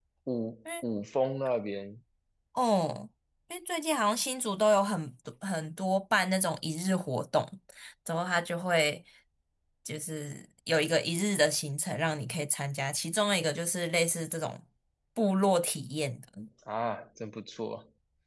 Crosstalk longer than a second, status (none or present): none